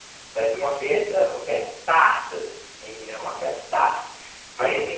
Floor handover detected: No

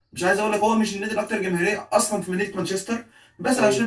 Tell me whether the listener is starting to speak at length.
No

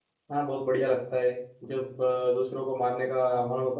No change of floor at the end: Yes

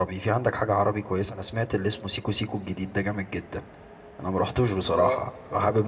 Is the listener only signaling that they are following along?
Yes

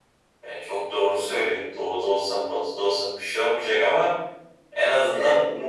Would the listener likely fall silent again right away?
Yes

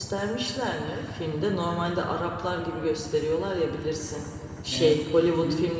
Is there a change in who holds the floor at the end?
No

